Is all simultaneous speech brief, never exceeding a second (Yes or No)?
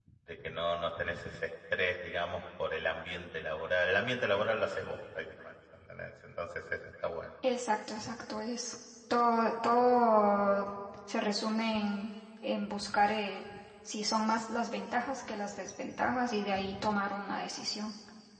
Yes